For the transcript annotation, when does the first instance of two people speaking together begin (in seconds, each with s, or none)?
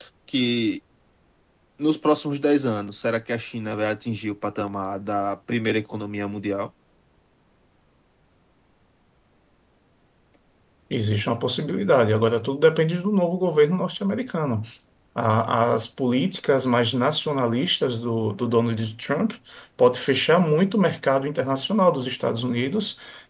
none